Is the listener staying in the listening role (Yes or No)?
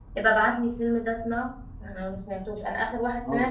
Yes